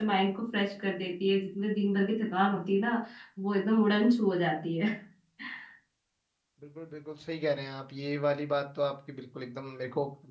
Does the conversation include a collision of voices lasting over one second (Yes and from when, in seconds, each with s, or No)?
No